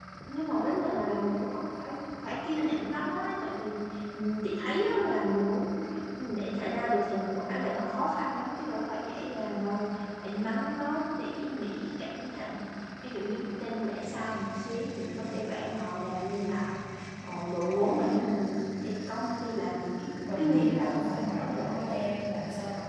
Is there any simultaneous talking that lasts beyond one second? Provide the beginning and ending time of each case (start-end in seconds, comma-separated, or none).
20.4-21.8